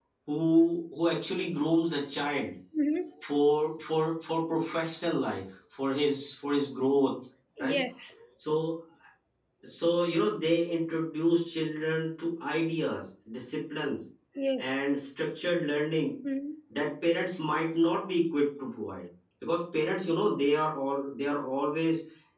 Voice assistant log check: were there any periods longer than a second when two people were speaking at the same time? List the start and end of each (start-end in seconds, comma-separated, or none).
none